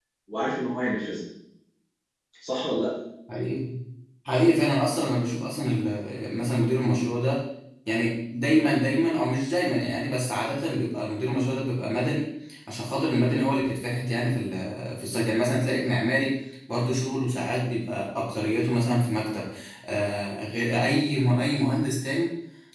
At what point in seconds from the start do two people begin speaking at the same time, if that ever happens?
none

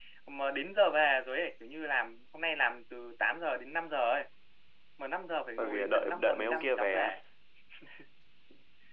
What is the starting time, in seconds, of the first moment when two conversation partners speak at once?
5.6 s

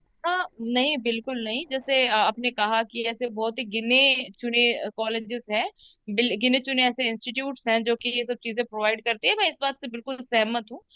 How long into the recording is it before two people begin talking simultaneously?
none

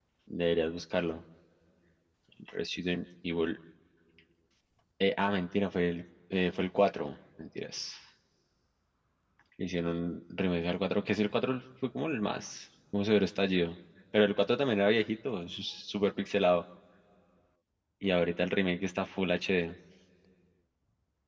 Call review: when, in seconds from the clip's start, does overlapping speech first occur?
none

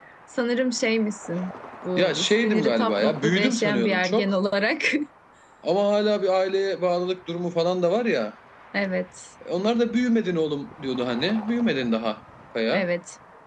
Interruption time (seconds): 2.0 s

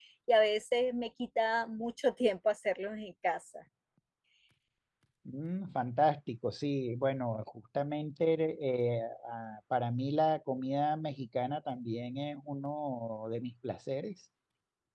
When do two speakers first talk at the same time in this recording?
none

